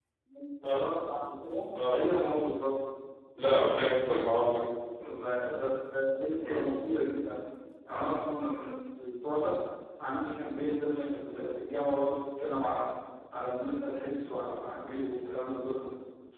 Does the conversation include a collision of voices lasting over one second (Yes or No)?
No